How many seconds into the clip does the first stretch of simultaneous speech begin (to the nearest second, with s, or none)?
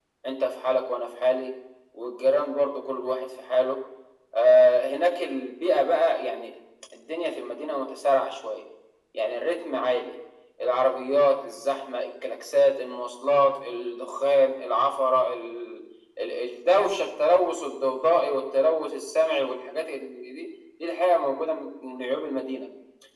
none